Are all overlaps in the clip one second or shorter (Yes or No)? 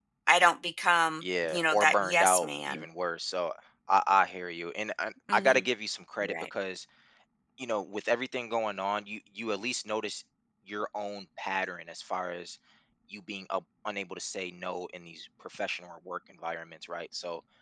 No